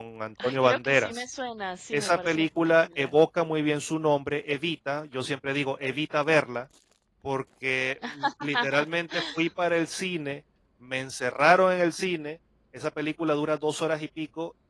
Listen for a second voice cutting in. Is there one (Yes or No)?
Yes